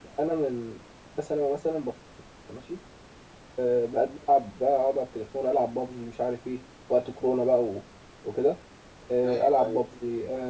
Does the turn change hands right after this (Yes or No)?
No